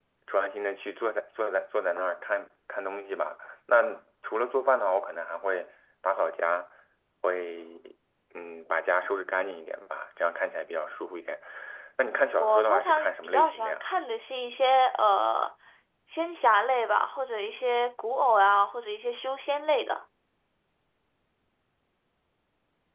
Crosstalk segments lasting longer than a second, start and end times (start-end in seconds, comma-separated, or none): 12.4-13.8